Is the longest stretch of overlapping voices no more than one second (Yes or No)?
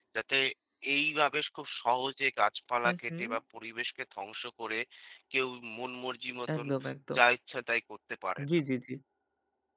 Yes